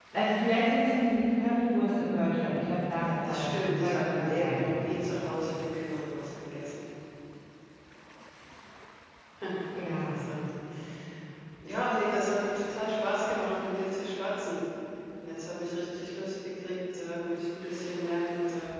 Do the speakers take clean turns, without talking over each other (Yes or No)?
No